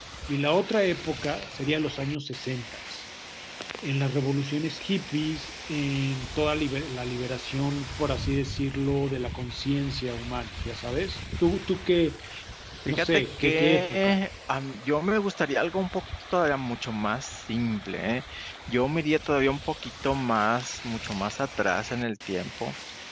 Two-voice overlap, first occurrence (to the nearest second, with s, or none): 13 s